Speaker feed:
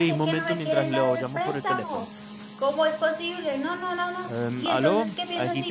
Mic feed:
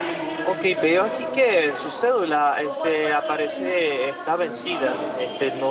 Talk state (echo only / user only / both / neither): both